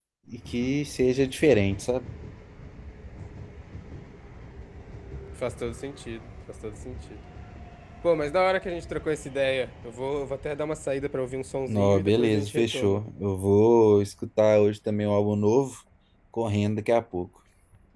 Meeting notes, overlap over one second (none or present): present